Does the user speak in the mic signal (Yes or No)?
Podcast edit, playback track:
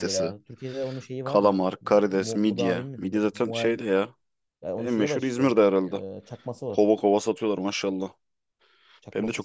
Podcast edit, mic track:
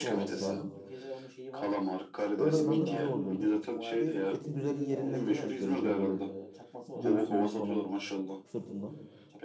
Yes